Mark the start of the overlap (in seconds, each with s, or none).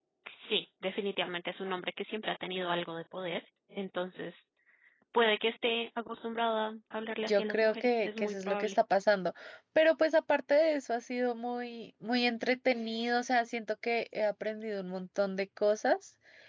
7.3 s